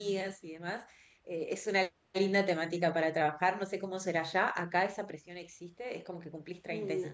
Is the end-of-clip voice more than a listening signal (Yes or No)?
No